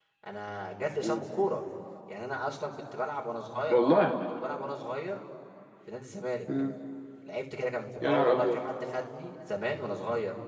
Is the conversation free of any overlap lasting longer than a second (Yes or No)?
Yes